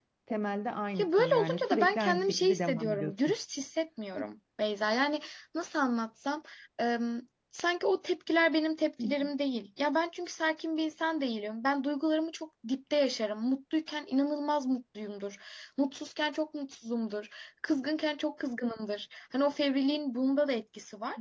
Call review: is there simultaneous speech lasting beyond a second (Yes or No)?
Yes